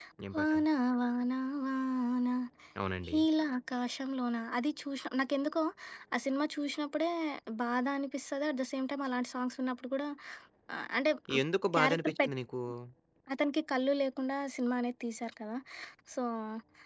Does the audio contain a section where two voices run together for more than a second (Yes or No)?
No